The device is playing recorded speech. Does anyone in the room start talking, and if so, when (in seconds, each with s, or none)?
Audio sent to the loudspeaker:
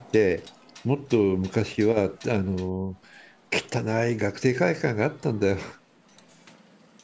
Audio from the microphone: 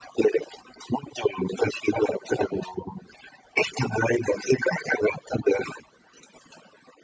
none